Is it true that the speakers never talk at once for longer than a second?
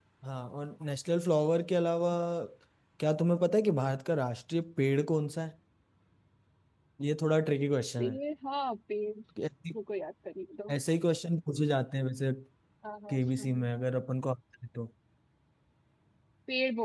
Yes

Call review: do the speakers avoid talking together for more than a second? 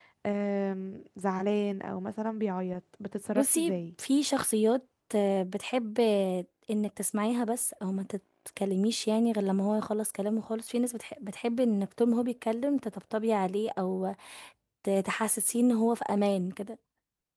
Yes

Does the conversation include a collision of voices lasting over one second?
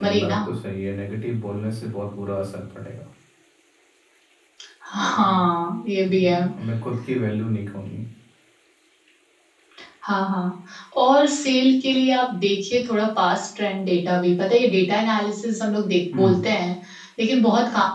No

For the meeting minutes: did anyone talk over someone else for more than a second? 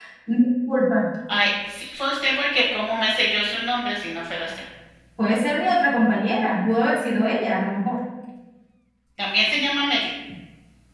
No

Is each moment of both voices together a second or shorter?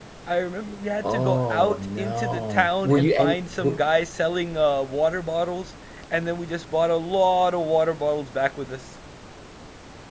No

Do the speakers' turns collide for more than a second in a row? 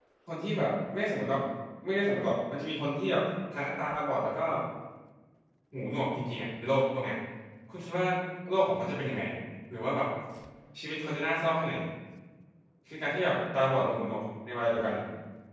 No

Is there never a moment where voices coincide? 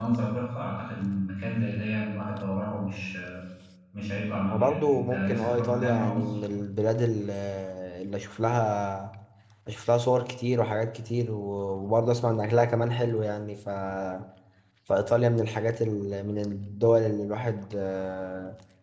No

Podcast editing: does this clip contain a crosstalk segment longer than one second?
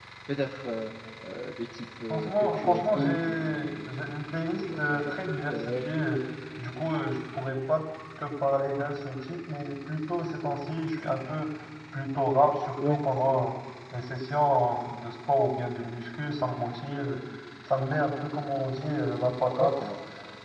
Yes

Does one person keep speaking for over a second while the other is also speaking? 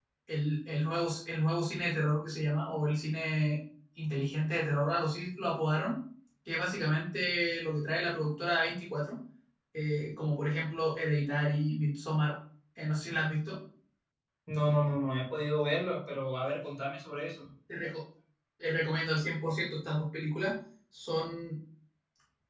No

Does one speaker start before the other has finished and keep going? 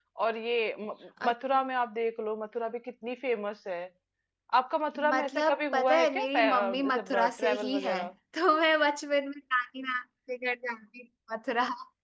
Yes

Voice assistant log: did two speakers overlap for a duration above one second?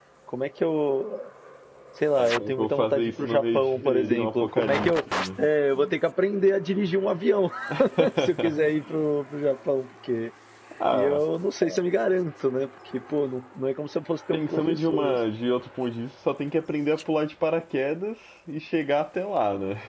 Yes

